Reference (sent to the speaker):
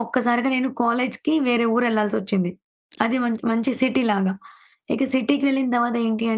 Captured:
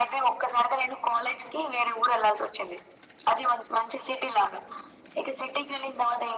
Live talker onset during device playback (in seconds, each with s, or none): none